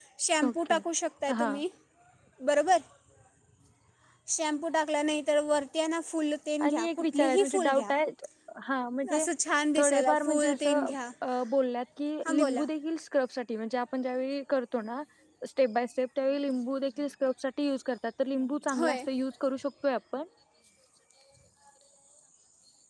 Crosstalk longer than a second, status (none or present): present